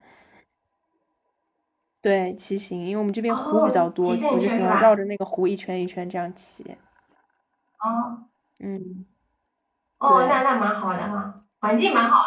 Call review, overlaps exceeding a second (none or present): present